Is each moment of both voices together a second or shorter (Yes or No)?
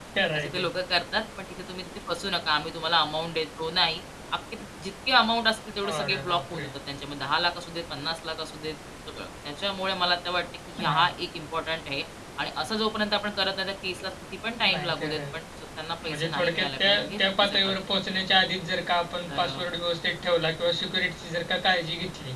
No